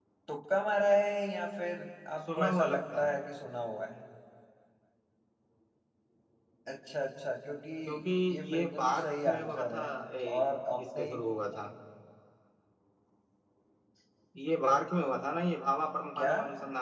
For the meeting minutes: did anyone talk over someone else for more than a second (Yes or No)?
Yes